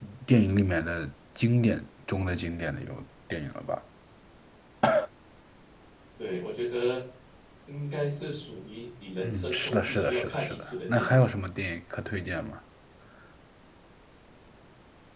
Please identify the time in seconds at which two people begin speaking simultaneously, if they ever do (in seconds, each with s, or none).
9.2 s